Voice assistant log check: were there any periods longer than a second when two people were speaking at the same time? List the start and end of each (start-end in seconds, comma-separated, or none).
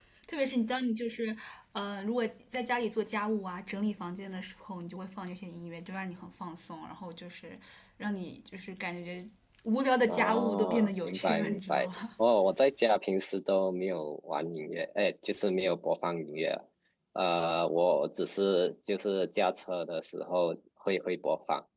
10.1-11.9